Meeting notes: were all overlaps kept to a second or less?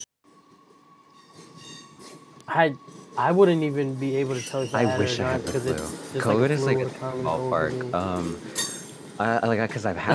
No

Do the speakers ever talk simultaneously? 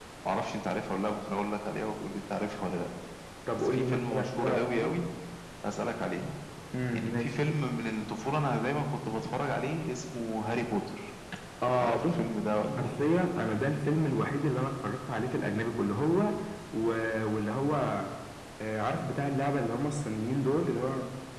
Yes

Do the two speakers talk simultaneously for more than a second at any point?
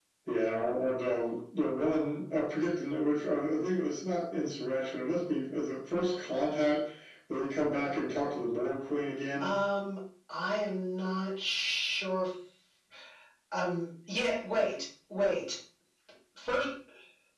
No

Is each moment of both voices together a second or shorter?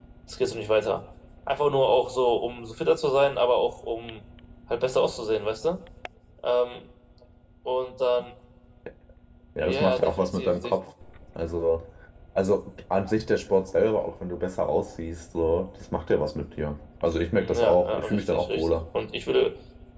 No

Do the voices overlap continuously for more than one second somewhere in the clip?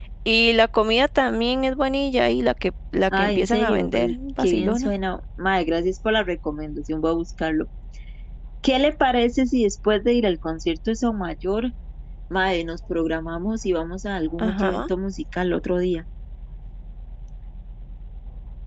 Yes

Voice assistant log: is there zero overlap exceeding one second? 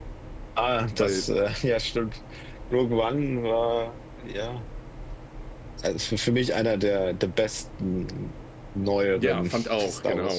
No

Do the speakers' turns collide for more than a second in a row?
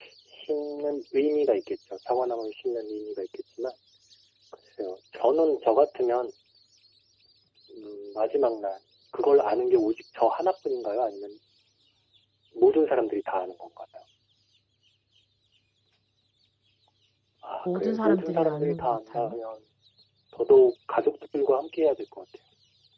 Yes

